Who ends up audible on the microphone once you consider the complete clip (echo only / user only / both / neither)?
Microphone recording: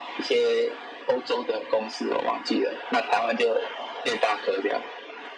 echo only